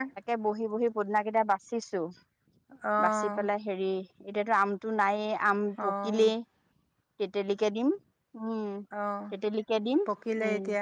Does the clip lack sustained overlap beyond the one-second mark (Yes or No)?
Yes